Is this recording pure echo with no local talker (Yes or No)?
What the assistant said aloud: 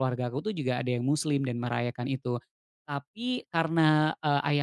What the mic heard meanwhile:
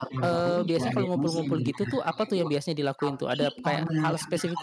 No